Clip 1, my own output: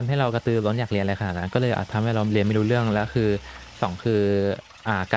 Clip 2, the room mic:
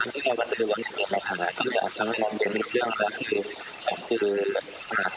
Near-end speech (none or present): none